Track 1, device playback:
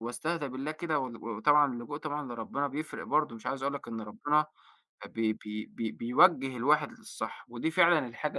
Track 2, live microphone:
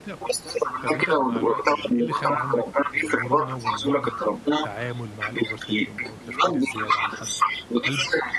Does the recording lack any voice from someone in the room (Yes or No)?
No